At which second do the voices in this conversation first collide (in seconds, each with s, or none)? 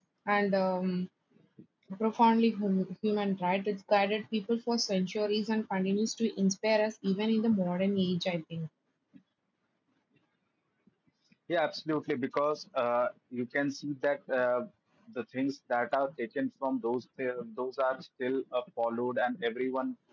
none